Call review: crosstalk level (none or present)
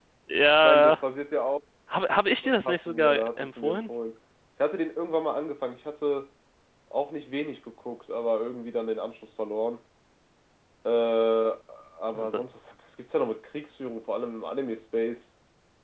present